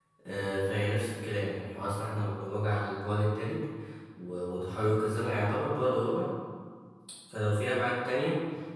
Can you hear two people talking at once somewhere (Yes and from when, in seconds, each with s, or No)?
No